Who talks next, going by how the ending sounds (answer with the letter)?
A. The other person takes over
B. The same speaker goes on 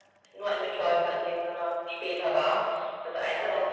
B